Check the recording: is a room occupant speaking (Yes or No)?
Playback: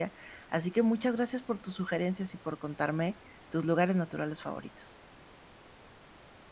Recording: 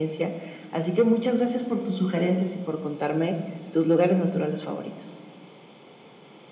No